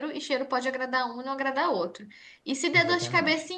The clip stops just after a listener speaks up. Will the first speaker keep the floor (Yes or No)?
Yes